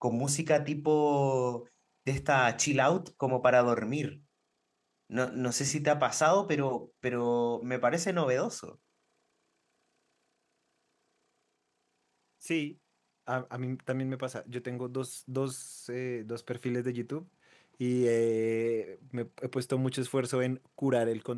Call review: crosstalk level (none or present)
none